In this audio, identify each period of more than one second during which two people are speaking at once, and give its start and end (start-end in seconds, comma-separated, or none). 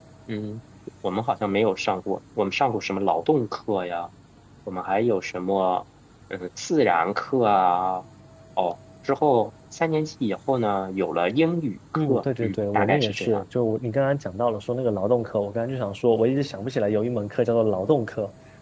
12.1-13.4